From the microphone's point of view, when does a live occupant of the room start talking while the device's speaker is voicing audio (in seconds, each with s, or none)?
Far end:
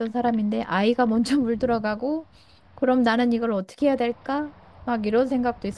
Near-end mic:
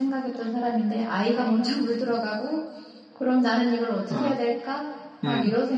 4.1 s